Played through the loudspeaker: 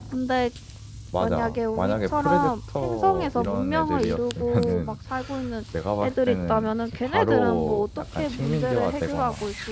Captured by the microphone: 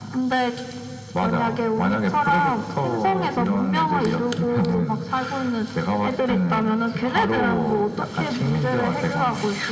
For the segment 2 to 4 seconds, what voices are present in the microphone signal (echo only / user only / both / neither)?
echo only